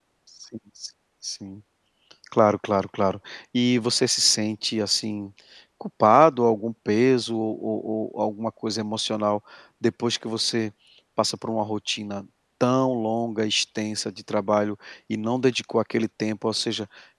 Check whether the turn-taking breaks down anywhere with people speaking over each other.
No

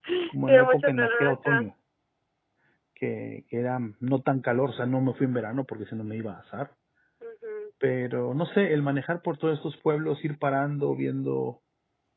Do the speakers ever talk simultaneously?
Yes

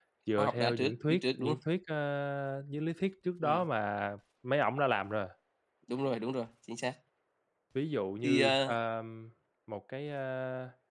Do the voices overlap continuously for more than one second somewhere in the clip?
Yes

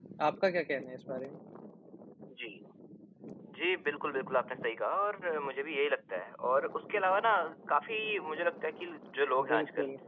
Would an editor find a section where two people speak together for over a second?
No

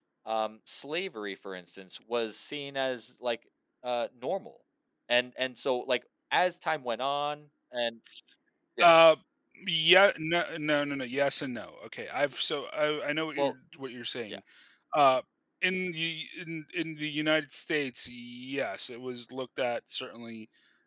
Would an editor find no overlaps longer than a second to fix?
Yes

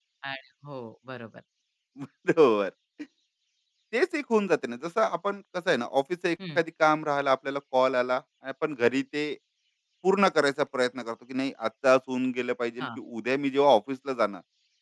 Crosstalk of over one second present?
No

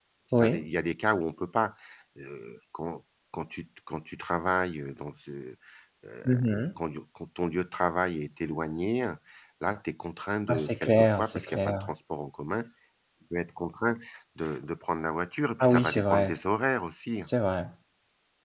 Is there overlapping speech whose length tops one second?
Yes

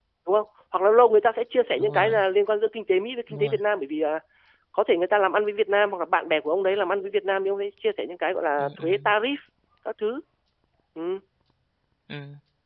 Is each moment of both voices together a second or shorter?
Yes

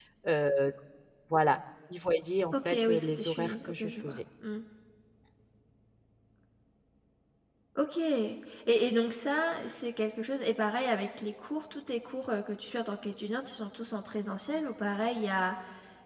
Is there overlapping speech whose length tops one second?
Yes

